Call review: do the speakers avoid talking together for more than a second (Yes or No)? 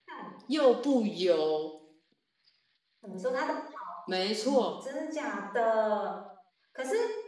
Yes